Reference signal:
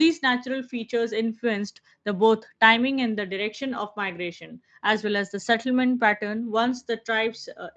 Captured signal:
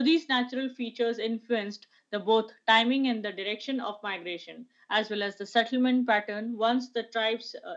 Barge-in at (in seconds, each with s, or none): none